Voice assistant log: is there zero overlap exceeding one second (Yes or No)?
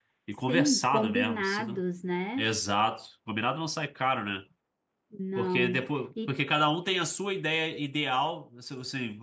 No